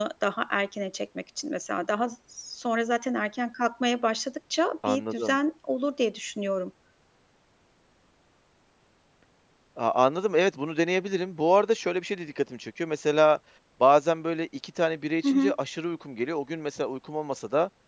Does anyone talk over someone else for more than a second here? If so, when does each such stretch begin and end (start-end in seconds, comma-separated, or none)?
none